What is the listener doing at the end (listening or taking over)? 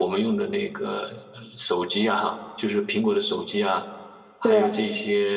listening